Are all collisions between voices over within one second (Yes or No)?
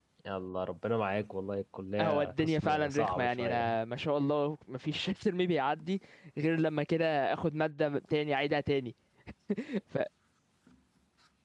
No